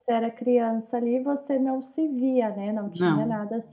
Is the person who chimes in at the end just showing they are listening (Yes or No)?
Yes